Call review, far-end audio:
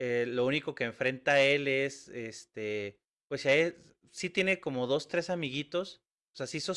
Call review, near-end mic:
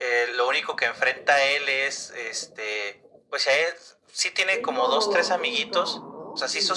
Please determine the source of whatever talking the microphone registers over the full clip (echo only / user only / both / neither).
both